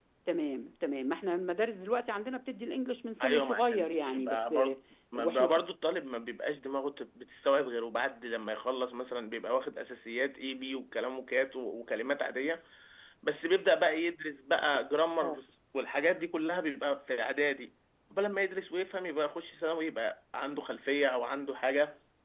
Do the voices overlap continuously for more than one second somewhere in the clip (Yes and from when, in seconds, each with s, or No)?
Yes, from 3.2 s